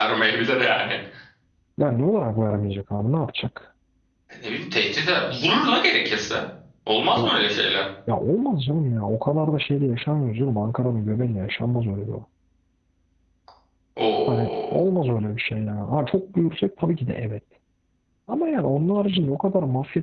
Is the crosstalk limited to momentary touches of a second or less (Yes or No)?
Yes